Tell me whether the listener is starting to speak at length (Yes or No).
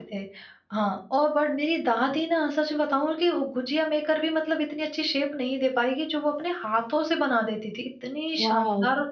Yes